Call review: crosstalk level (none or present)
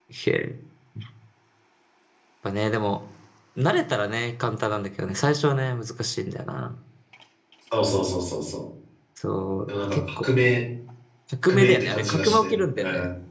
present